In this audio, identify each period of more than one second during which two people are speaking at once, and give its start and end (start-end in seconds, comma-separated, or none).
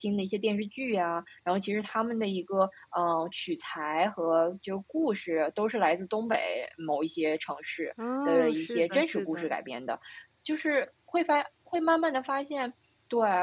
8.2-9.5